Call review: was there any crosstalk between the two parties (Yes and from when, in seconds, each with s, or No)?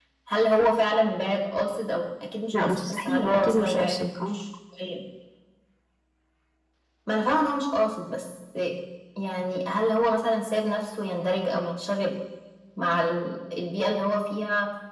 Yes, from 2.5 s